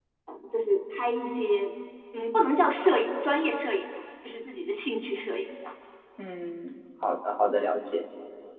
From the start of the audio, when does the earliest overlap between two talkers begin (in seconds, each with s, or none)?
none